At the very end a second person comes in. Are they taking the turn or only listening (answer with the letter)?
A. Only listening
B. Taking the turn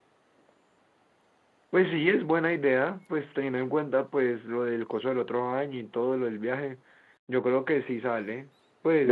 B